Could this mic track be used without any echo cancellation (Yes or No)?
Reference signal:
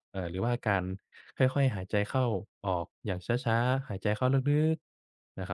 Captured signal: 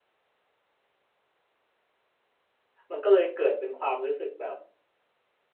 Yes